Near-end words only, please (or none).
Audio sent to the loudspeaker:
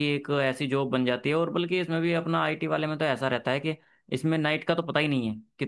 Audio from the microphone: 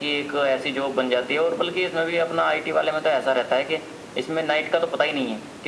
none